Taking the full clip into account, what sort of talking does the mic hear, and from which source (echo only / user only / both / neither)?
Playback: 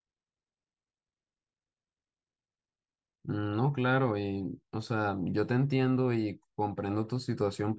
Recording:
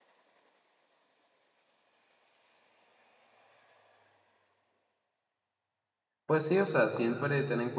user only